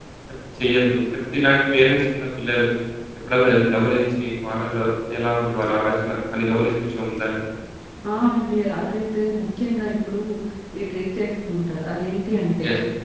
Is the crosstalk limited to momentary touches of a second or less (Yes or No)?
Yes